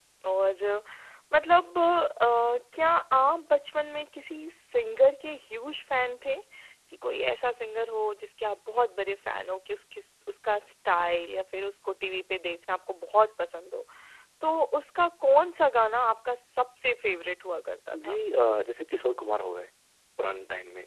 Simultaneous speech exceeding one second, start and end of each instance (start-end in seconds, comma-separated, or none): none